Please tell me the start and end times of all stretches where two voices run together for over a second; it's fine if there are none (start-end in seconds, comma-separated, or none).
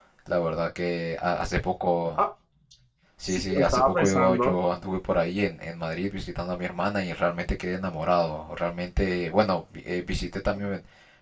3.3-4.6